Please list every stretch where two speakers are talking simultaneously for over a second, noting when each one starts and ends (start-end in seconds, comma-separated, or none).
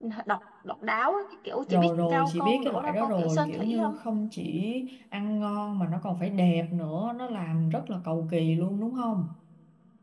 1.7-4.0